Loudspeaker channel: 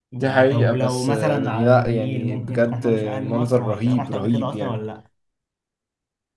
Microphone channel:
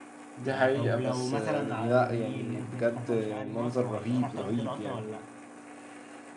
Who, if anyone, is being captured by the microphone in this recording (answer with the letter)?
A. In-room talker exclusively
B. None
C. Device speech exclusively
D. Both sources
C